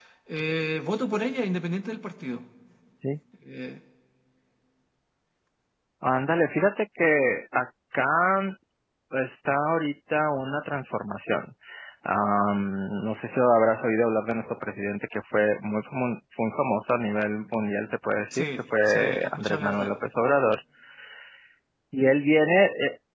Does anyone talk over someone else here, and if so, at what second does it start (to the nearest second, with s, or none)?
18 s